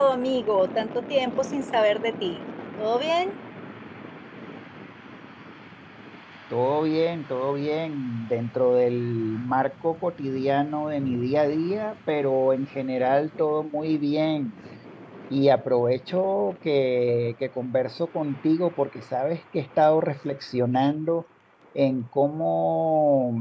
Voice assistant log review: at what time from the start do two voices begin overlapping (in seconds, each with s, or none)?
none